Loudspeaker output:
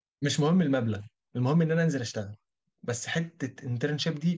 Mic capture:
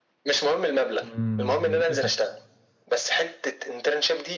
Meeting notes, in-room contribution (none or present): present